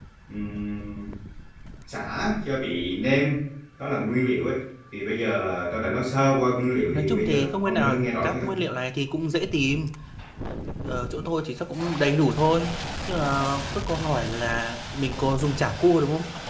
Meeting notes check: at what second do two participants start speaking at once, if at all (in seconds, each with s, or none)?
6.9 s